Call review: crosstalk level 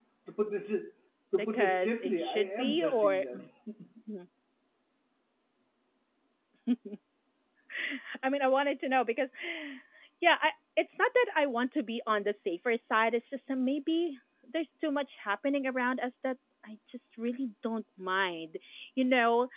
present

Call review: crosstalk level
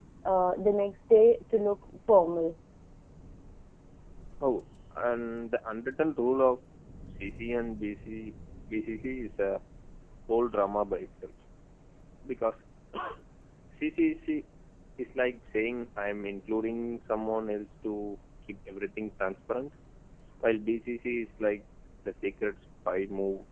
none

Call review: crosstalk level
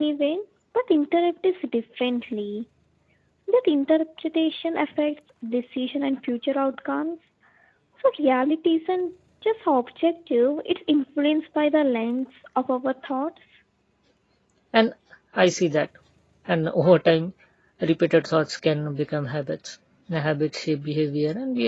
none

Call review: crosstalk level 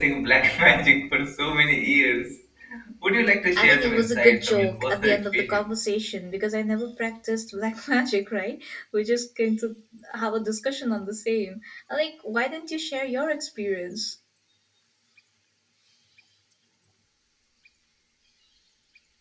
present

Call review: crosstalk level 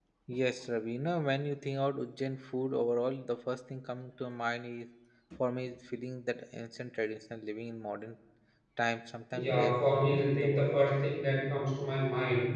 present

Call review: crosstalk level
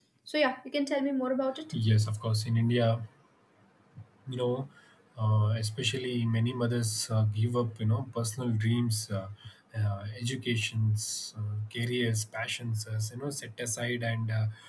none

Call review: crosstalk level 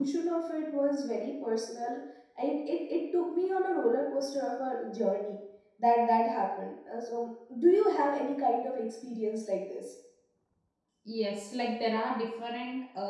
none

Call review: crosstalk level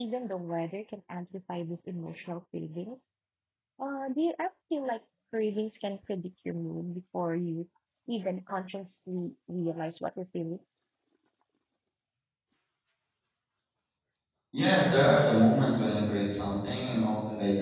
none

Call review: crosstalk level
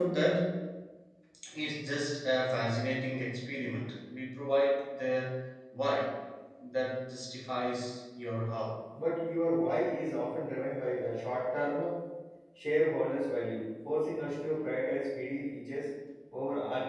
none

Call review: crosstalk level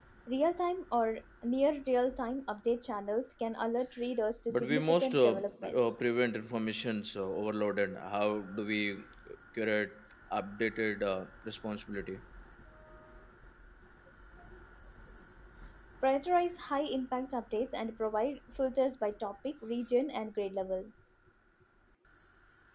present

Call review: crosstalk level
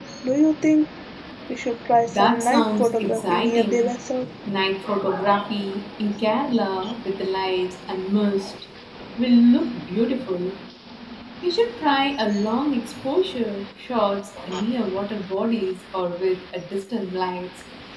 present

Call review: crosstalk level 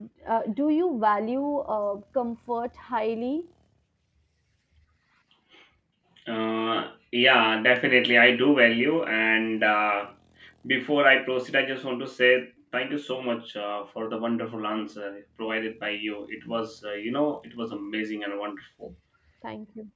none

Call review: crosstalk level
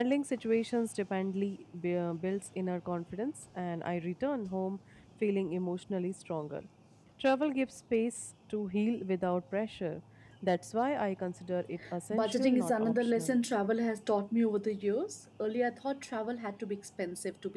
present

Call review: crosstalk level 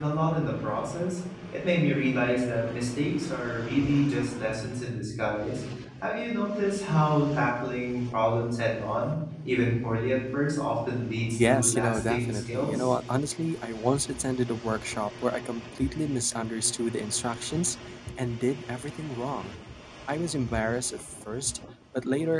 present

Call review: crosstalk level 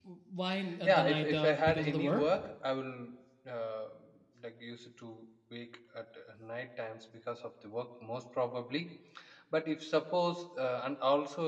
present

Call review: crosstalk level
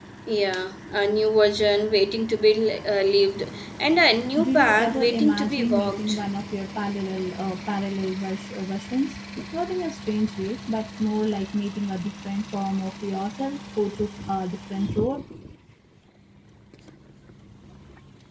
present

